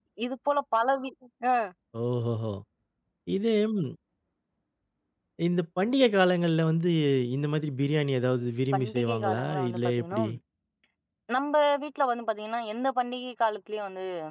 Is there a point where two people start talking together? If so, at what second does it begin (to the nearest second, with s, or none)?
9 s